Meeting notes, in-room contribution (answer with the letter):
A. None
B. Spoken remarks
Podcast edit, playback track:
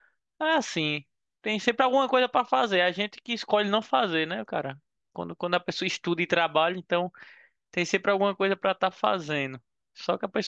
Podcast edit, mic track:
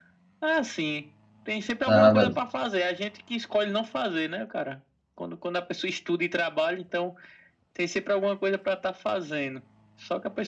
B